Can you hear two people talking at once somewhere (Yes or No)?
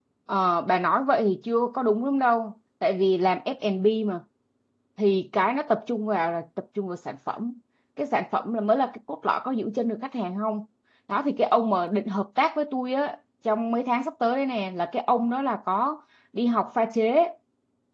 No